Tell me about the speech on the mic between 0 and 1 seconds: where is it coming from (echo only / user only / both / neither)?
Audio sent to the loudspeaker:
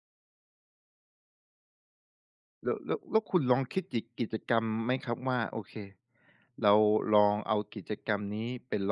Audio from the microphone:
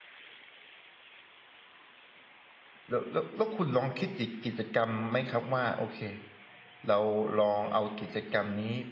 neither